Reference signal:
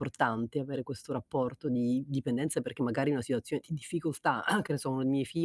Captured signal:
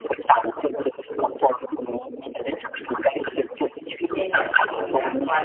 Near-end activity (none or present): present